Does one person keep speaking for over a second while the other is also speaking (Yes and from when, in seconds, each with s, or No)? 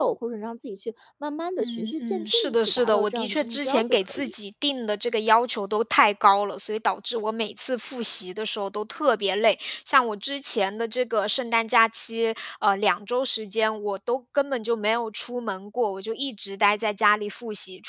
Yes, from 1.6 s